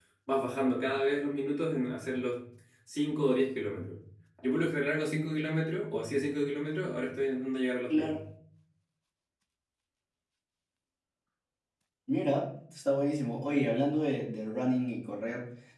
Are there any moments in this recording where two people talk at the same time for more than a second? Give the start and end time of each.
none

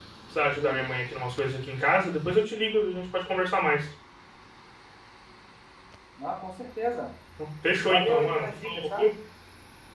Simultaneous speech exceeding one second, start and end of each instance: 7.8-9.1

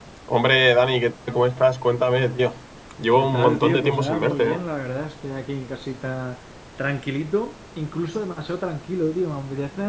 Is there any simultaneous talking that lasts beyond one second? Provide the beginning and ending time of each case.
3.1-4.6

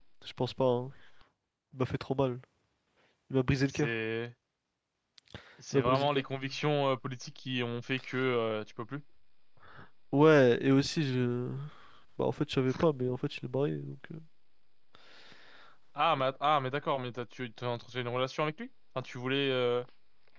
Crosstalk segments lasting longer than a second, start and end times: none

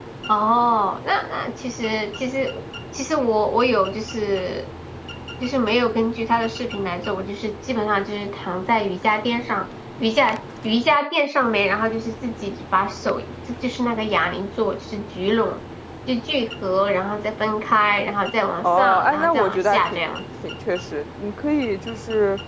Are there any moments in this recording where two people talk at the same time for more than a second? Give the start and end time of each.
18.6-20.1

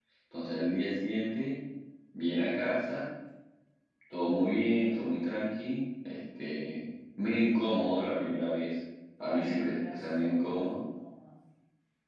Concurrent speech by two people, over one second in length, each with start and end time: 9.3-10.8

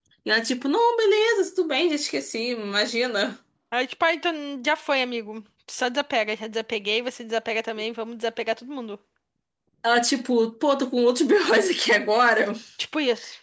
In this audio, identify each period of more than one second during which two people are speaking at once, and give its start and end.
none

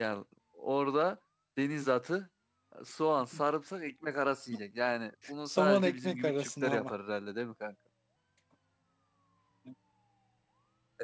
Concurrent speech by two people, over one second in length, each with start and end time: 5.4-6.9

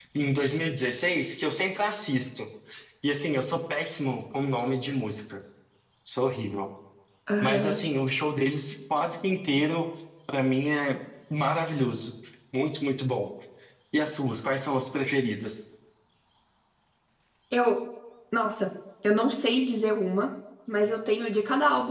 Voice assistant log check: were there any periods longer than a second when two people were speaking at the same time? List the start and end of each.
none

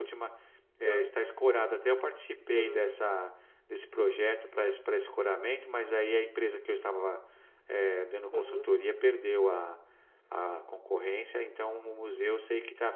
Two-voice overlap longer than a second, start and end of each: none

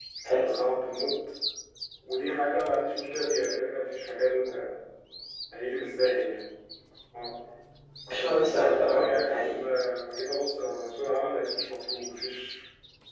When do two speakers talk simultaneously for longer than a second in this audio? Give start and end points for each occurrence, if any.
8.1-9.5

